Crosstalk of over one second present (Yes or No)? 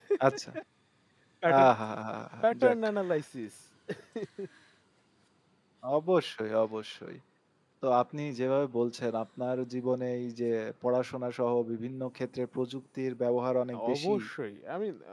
No